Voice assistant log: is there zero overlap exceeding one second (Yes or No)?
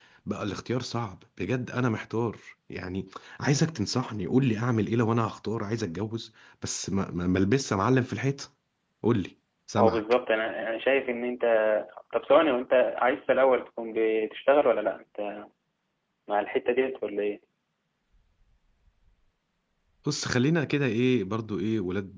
Yes